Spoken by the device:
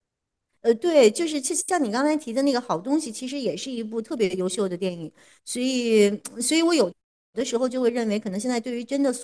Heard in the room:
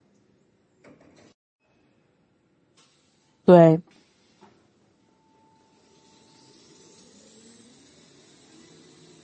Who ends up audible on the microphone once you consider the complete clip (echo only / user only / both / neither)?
user only